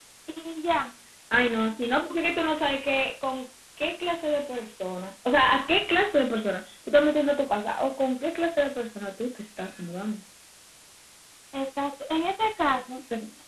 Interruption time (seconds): none

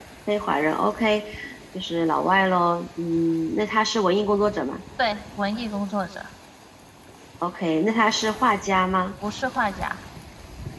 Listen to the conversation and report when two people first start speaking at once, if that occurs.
none

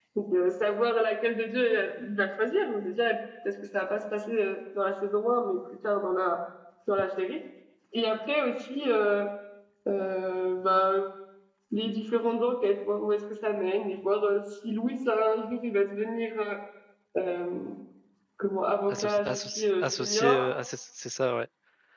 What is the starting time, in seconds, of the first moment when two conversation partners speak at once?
18.9 s

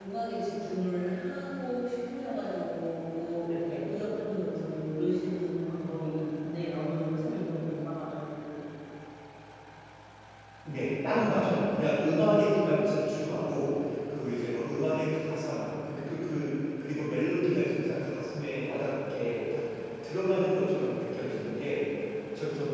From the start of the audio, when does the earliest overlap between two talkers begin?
none

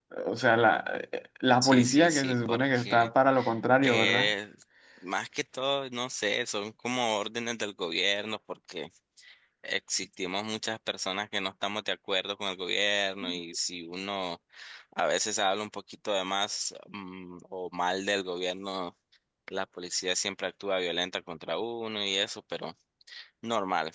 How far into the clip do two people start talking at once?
1.6 s

